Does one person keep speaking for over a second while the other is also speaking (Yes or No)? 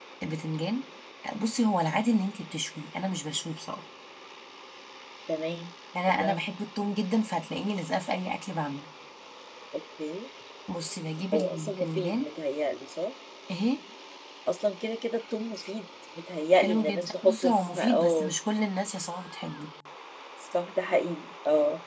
Yes